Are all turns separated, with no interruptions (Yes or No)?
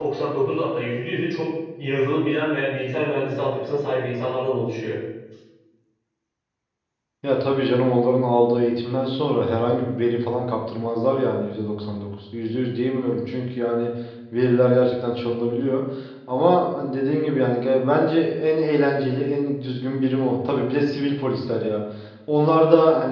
Yes